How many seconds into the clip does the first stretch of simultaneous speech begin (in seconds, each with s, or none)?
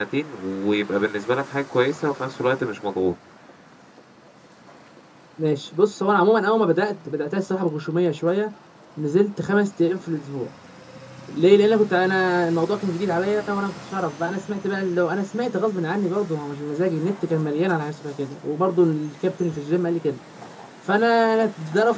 none